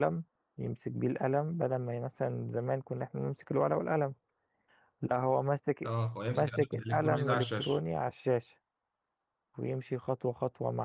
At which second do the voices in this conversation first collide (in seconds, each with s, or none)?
6.3 s